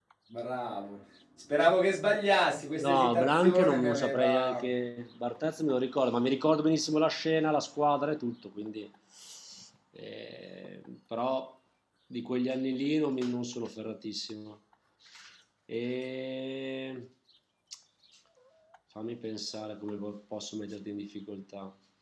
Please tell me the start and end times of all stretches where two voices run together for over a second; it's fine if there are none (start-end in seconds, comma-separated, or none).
2.8-4.6